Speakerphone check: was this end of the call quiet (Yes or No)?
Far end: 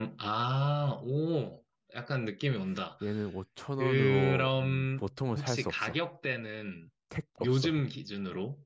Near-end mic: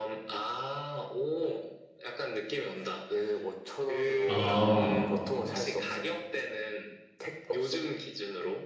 No